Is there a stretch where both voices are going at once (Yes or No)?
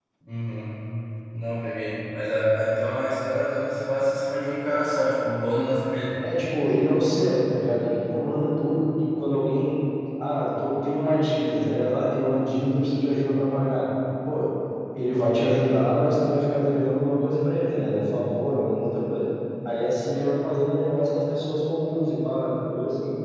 No